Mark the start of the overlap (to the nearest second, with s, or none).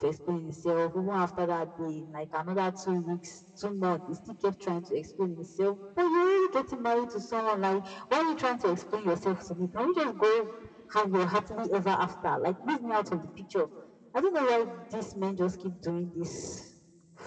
none